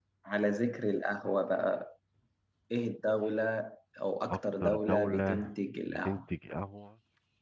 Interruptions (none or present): present